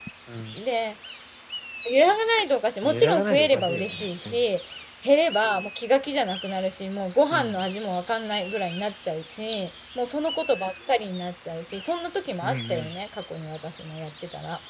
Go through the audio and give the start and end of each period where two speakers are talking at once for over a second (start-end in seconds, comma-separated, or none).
2.8-4.4